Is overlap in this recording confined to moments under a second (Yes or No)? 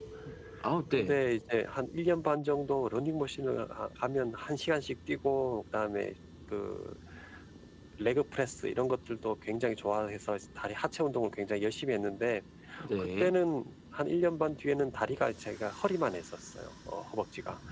Yes